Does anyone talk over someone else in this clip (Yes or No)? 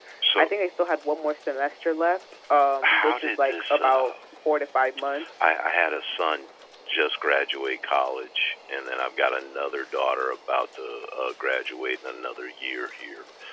Yes